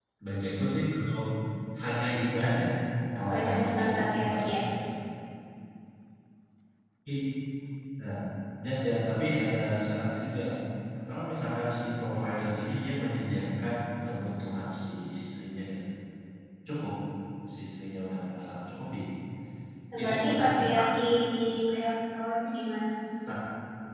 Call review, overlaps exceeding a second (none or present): present